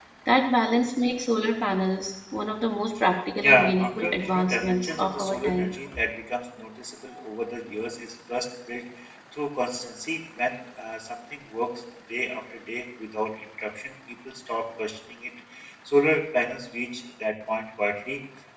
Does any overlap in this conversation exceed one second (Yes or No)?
Yes